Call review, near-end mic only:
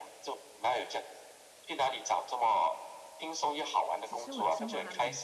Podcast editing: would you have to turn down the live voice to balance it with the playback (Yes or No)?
No